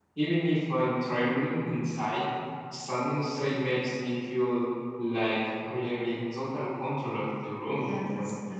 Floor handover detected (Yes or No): Yes